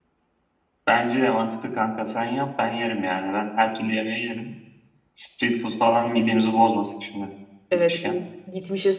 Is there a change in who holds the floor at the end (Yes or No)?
Yes